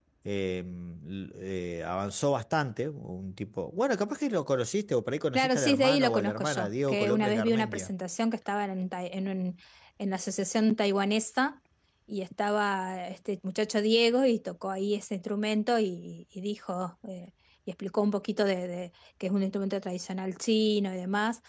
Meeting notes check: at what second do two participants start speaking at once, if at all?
5.3 s

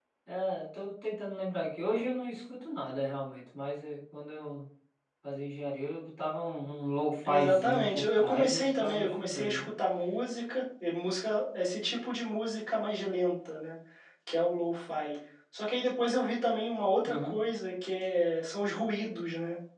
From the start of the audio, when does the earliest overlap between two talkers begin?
7.2 s

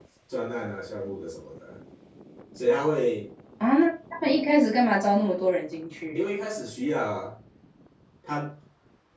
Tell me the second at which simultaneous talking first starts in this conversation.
none

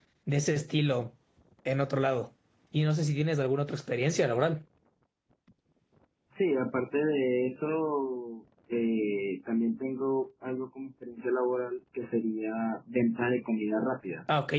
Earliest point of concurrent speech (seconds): none

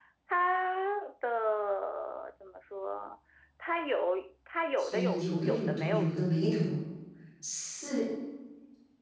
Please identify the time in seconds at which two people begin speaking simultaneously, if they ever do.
4.8 s

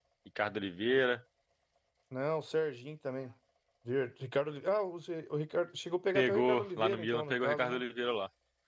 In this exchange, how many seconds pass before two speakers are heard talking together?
6.2 s

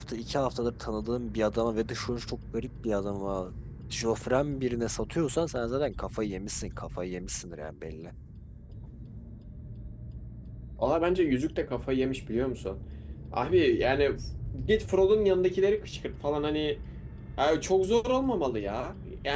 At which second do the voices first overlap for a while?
none

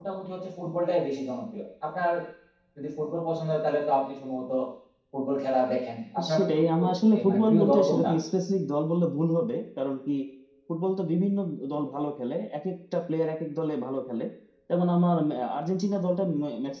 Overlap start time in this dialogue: 6.2 s

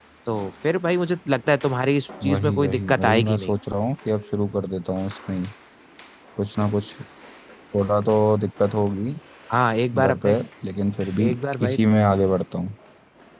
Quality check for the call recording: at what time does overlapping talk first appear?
2.2 s

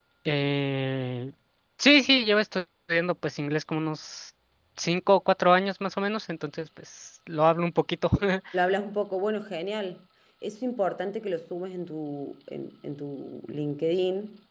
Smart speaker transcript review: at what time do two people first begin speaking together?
none

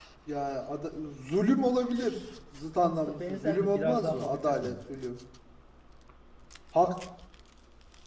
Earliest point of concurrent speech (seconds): 2.8 s

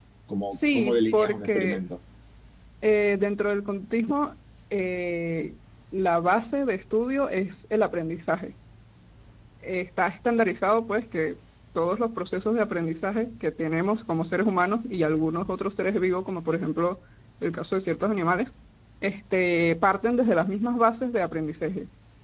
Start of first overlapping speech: 0.5 s

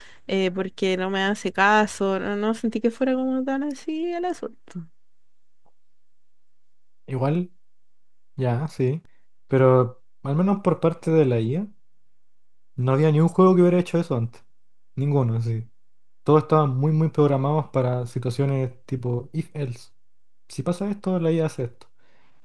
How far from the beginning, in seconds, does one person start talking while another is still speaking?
none

